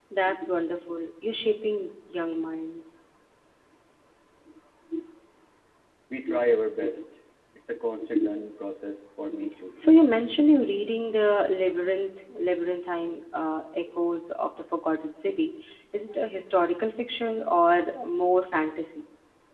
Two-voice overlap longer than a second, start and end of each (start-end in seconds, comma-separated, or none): none